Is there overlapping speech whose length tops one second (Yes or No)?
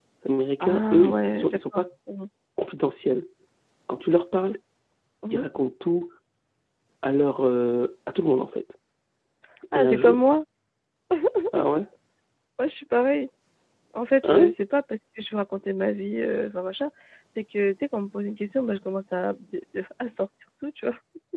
Yes